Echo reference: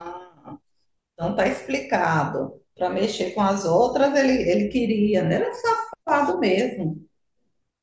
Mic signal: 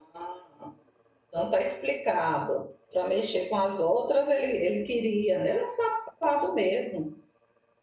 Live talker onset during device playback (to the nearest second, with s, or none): none